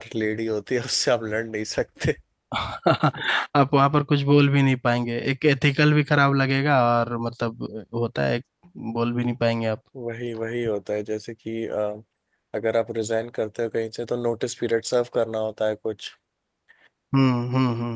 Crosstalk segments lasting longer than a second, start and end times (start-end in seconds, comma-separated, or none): none